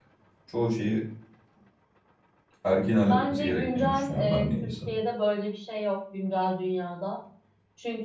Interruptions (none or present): present